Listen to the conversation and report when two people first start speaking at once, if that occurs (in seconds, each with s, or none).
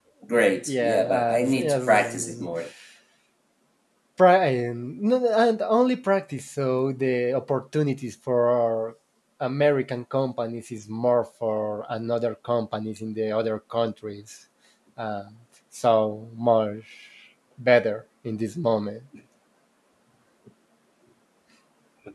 0.7 s